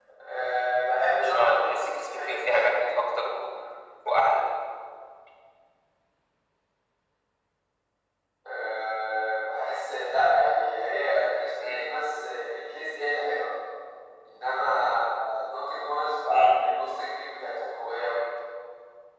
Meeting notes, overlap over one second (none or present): present